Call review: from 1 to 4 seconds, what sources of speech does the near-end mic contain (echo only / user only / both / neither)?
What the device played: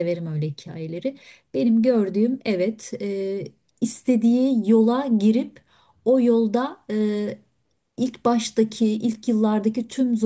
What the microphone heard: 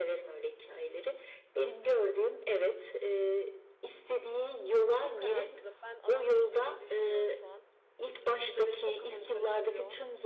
echo only